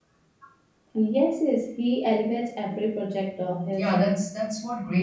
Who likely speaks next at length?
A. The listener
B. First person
A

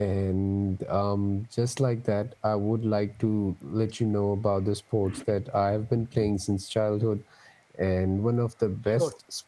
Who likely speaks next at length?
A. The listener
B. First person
B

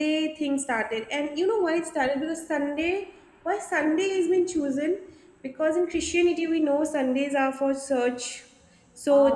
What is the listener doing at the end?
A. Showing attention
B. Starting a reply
A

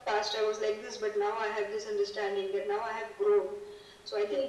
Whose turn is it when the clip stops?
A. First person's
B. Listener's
A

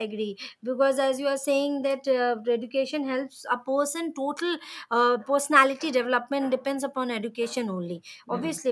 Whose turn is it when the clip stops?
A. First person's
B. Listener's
A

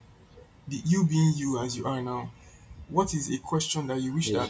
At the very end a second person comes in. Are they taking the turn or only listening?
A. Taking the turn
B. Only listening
B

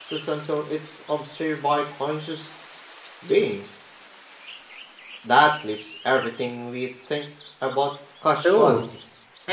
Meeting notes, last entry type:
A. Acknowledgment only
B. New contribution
B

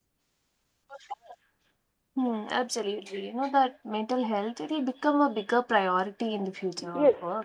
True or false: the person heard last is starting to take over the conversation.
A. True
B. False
A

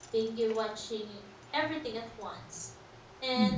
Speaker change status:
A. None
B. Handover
A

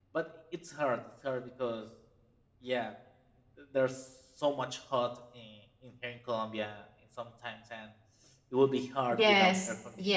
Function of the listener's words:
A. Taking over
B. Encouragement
A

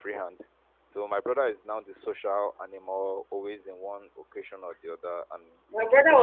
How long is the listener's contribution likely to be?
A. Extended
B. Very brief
A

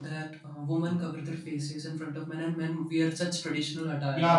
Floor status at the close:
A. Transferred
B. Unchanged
A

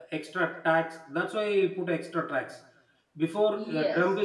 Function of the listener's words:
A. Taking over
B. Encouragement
B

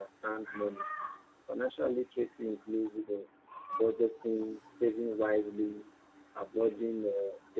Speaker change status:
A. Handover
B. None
B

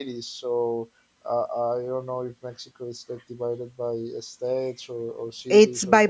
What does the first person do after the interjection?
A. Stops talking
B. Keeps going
A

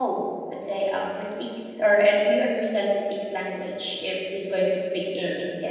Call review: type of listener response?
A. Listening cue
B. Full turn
B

